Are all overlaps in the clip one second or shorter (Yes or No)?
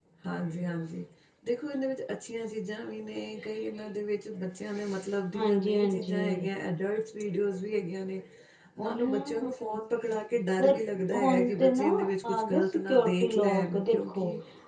No